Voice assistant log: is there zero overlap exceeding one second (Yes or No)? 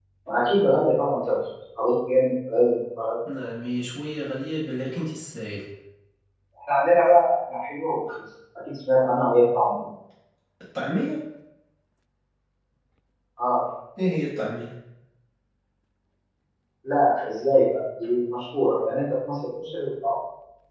Yes